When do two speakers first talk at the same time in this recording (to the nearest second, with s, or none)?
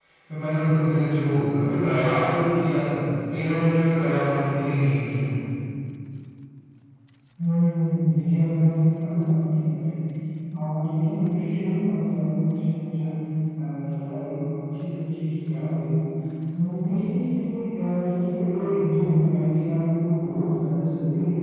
none